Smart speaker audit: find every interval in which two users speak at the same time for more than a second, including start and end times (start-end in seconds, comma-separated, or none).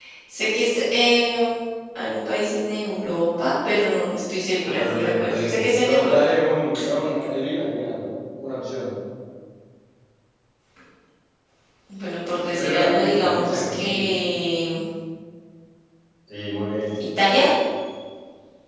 4.8-6.1, 12.5-14.1